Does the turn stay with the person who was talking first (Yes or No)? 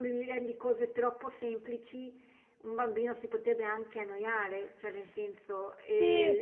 Yes